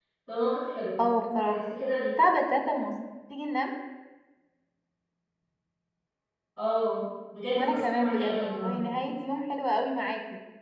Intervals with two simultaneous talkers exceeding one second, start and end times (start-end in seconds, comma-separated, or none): 7.5-8.8